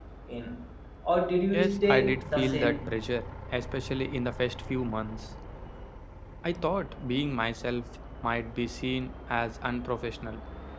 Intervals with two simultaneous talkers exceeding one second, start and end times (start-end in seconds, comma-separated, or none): 1.5-2.9